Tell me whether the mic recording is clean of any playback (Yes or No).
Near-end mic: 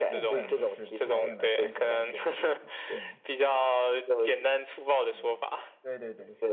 No